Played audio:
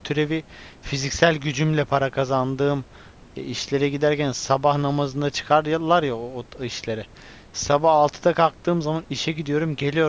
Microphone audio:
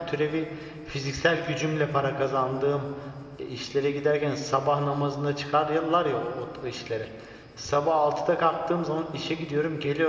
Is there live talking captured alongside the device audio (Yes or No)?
No